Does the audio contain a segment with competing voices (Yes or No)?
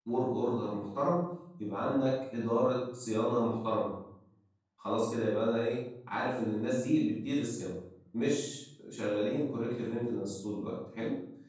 No